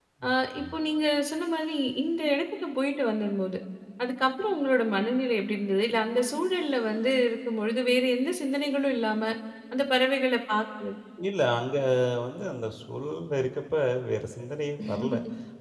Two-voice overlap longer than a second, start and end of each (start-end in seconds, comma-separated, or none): none